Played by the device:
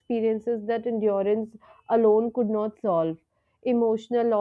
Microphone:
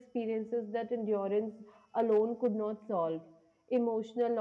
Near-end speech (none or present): none